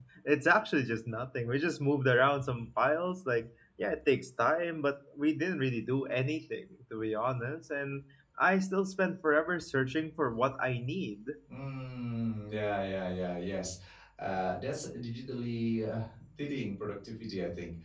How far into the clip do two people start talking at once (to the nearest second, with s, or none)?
none